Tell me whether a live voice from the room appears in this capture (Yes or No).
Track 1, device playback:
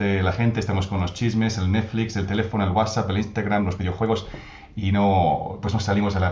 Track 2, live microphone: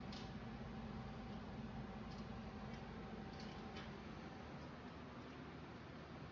No